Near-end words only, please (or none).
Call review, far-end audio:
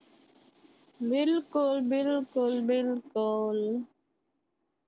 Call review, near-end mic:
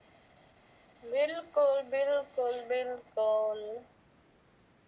none